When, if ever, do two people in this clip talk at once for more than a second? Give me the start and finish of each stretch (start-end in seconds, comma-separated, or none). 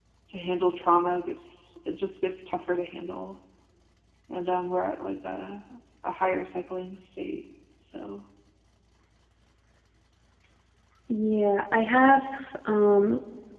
none